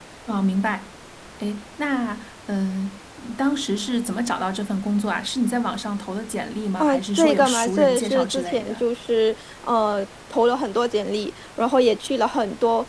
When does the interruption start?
6.8 s

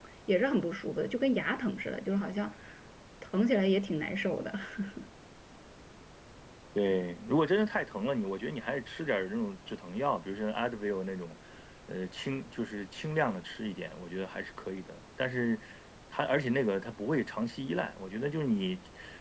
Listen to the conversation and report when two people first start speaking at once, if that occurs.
none

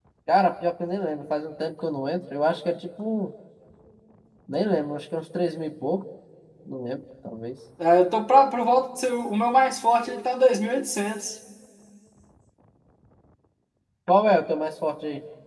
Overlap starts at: none

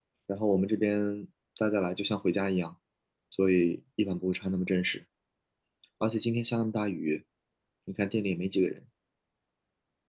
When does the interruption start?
none

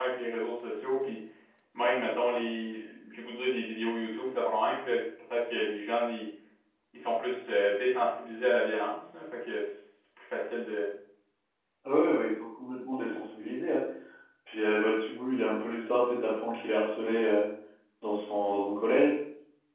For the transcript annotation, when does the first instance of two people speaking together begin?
none

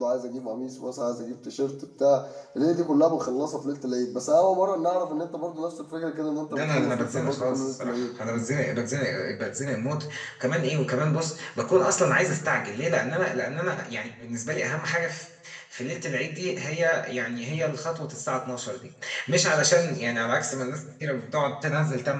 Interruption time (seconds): 6.5 s

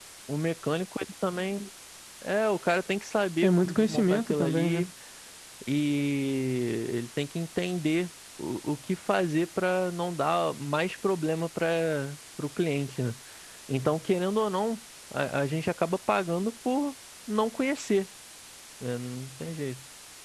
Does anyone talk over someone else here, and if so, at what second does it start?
3.4 s

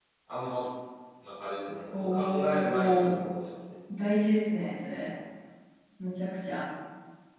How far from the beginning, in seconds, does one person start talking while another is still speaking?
1.9 s

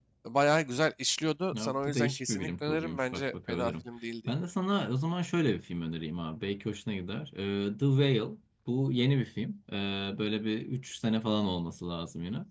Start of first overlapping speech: 1.5 s

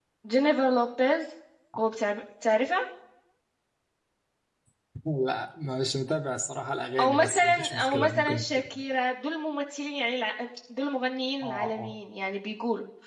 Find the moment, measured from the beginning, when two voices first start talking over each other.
7.0 s

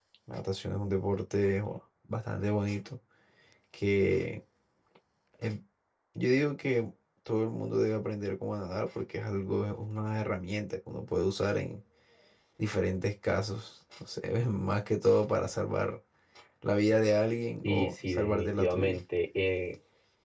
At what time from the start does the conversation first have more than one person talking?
17.6 s

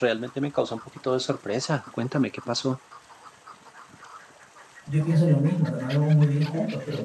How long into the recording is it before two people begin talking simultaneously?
none

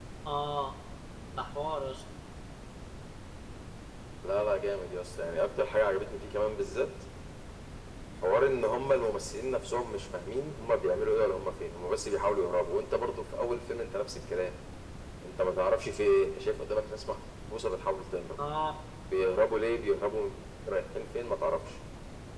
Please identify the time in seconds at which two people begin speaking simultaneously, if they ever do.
none

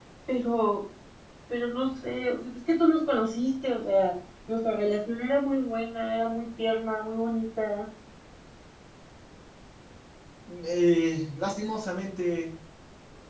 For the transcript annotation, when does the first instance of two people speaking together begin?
none

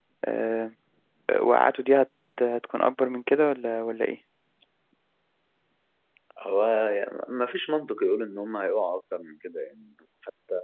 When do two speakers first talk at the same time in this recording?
none

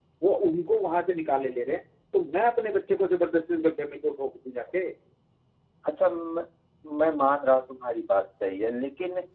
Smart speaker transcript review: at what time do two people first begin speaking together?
none

